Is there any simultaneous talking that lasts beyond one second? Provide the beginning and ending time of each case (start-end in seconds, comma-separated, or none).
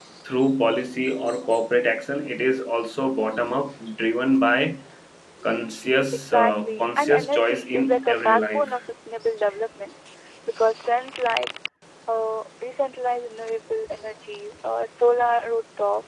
6.1-8.8